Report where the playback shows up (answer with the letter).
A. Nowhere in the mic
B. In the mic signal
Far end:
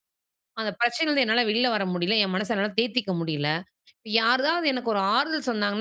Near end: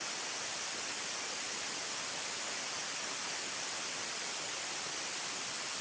A